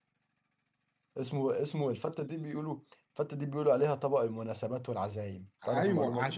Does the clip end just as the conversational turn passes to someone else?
Yes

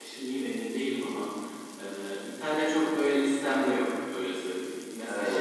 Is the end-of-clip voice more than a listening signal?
No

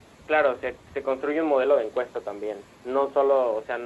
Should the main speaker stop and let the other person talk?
No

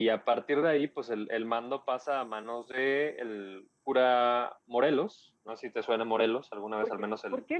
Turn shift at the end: Yes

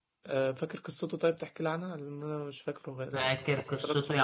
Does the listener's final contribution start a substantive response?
Yes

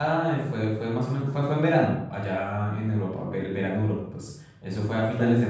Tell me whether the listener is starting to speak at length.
No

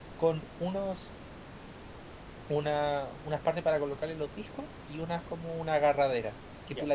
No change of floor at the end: Yes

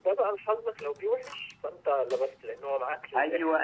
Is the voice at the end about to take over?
Yes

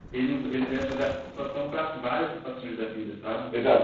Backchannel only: No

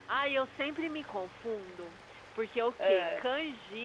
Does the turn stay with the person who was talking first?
Yes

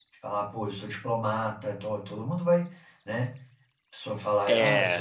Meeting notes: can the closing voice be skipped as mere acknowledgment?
Yes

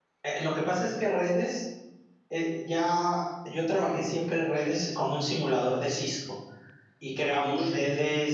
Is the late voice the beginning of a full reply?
No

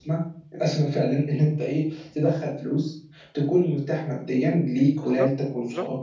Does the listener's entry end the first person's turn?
Yes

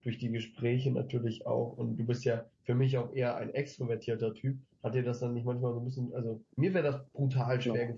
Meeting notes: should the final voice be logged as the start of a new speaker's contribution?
No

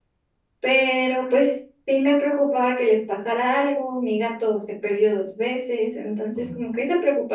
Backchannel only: Yes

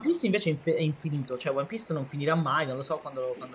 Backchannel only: No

